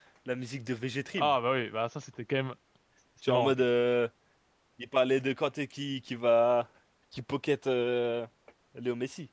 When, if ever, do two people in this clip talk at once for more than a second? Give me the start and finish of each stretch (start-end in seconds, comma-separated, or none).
none